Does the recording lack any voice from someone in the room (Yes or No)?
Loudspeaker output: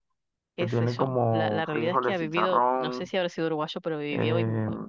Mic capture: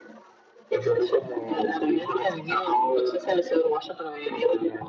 Yes